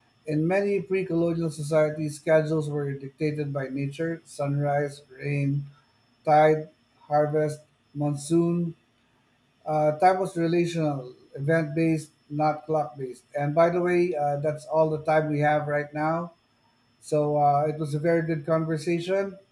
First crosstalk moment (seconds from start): none

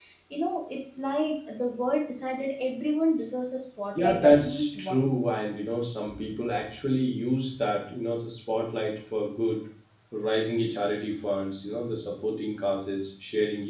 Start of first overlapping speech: 4.0 s

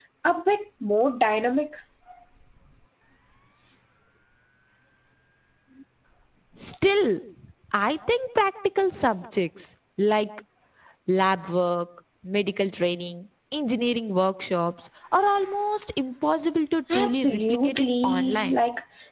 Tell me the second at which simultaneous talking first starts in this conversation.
16.9 s

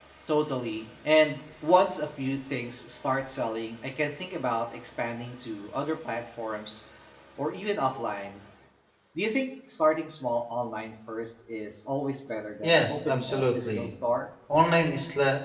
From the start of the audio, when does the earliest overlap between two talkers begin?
12.6 s

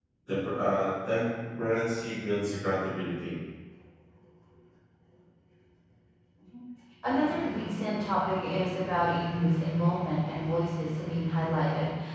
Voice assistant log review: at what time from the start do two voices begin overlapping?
none

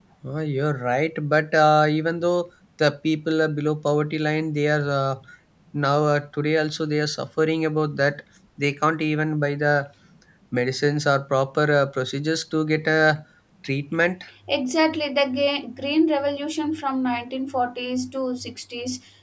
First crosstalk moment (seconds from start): none

